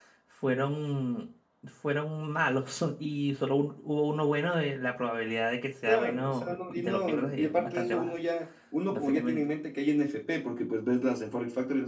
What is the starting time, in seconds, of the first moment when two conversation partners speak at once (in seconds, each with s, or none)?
5.9 s